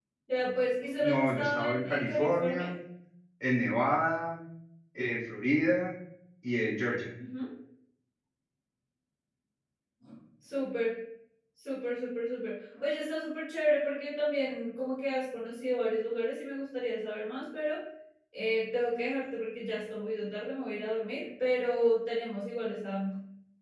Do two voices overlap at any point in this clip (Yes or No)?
Yes